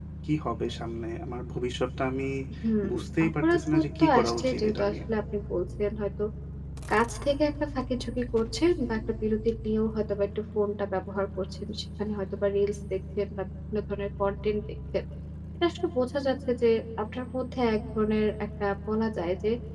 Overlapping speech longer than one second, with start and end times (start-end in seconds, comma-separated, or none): 3.3-4.9